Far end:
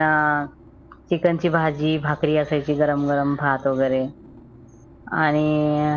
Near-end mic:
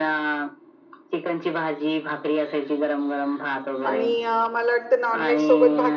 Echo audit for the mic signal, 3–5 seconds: both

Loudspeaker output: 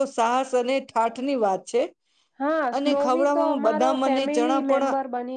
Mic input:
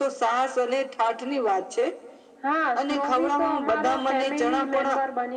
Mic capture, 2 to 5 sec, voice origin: echo only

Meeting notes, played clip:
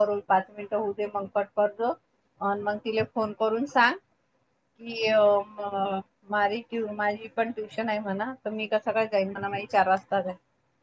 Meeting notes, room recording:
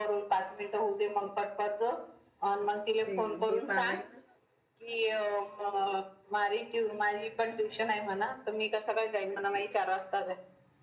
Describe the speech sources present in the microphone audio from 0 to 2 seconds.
echo only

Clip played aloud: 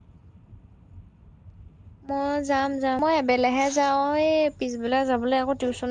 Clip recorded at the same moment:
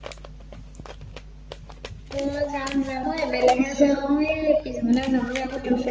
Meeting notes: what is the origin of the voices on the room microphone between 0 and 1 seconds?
neither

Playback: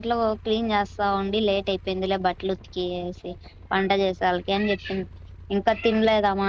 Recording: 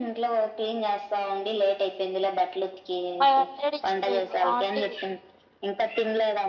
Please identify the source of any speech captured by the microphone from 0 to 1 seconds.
echo only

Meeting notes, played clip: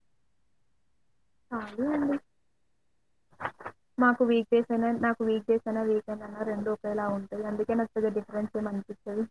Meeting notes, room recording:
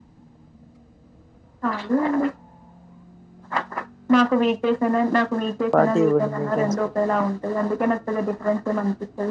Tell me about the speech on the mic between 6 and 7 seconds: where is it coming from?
both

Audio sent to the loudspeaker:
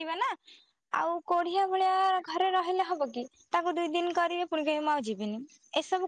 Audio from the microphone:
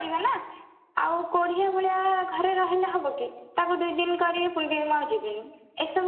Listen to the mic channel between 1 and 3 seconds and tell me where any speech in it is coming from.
echo only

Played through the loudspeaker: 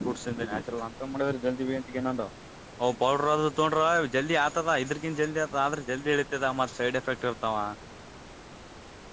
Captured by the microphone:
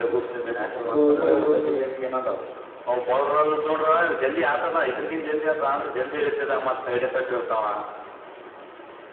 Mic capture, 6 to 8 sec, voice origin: echo only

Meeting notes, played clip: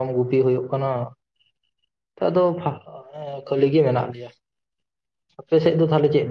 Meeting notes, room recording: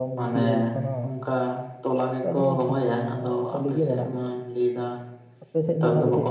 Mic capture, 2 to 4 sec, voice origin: both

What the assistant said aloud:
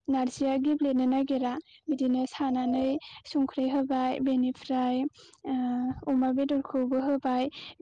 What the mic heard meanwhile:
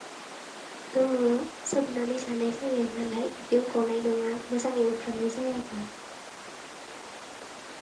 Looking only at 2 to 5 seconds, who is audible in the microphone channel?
user only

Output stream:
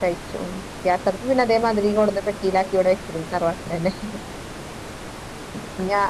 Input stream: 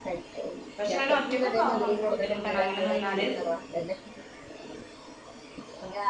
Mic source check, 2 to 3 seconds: both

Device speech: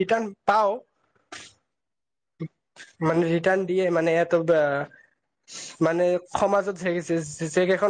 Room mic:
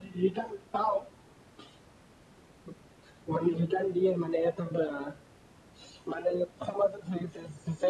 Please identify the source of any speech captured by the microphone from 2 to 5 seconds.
echo only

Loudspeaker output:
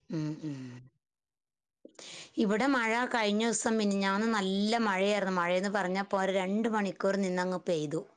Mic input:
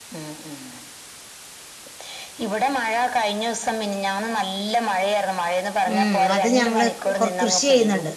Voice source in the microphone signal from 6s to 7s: both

